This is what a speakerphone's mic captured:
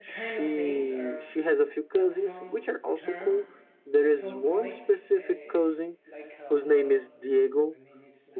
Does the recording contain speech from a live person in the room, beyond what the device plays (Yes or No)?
Yes